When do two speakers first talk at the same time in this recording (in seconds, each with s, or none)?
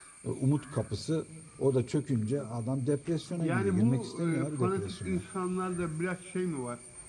3.4 s